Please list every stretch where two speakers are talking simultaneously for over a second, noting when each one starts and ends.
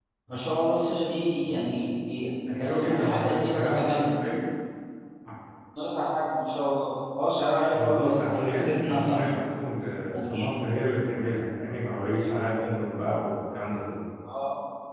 2.6-4.2, 7.7-9.4

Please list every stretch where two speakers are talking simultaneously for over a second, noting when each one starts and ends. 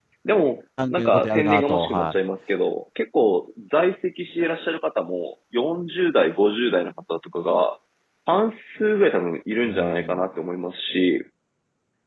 0.9-2.1

